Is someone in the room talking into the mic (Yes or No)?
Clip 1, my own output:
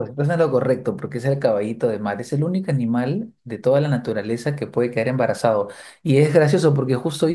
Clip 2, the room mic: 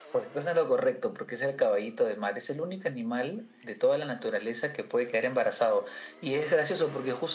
No